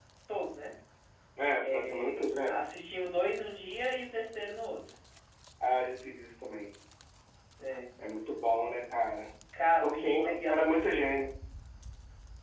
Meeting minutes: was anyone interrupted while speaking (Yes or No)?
Yes